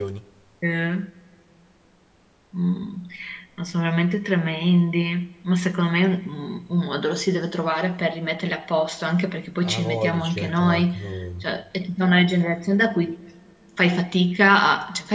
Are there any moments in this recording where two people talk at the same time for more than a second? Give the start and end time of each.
9.6-11.0

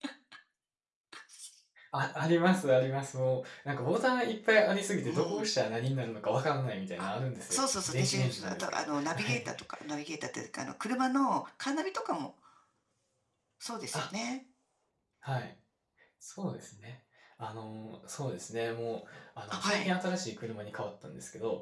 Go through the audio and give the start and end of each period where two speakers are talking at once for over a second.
7.5-9.5

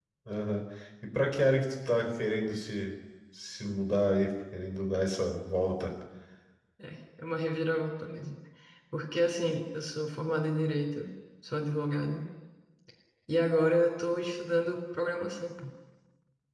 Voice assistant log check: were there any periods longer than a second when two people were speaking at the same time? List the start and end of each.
none

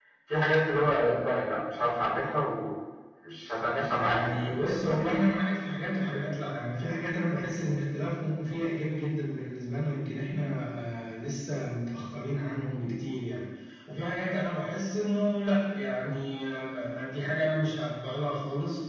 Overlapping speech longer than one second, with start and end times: 3.9-5.1

